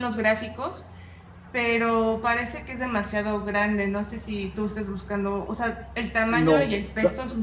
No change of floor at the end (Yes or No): No